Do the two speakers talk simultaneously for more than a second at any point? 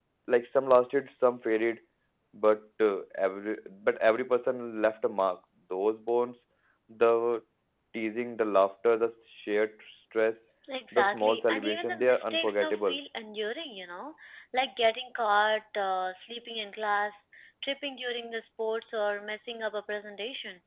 Yes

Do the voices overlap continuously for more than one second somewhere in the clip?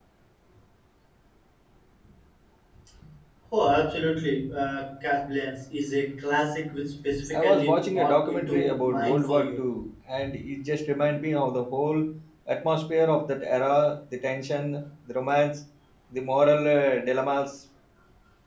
Yes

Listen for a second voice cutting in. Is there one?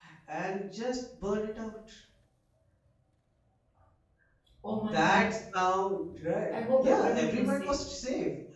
Yes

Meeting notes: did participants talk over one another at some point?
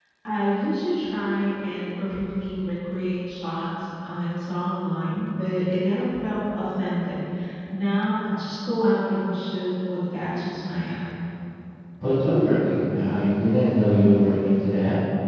No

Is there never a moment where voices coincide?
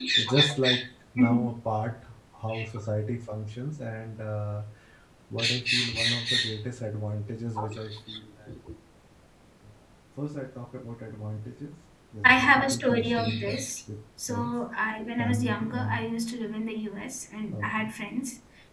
No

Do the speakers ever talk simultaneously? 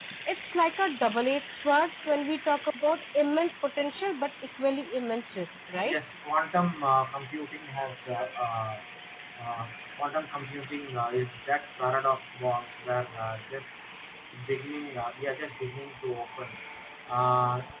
No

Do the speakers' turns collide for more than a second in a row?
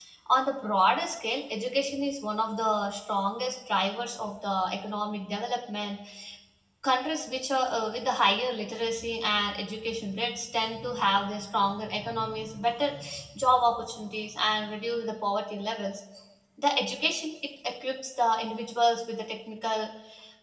No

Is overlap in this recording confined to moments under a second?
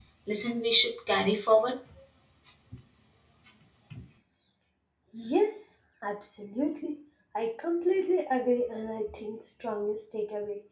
Yes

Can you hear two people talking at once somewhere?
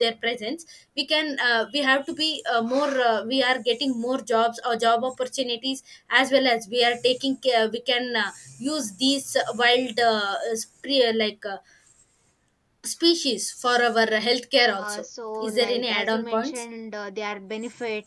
Yes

